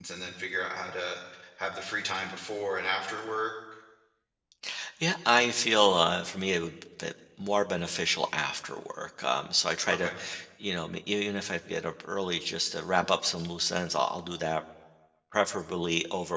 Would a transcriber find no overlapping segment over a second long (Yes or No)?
Yes